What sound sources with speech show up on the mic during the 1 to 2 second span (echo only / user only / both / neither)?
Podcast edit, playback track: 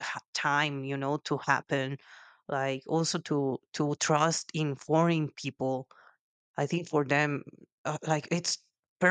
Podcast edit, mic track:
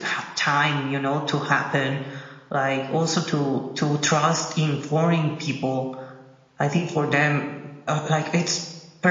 echo only